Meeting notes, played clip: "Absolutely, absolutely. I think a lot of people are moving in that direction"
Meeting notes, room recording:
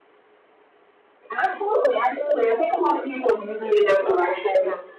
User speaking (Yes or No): Yes